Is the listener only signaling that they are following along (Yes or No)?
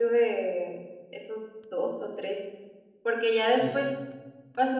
Yes